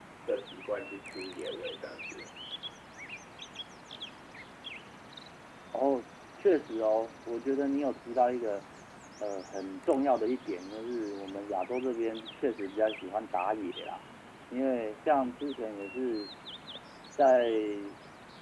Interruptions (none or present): none